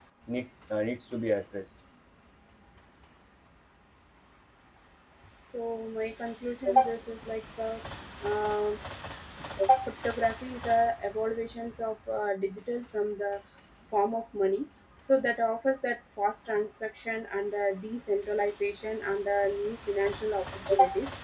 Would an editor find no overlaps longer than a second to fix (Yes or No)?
Yes